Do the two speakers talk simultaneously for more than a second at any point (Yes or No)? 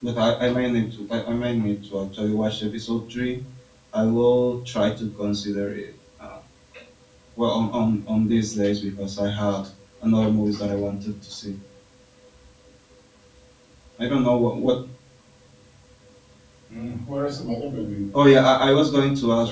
No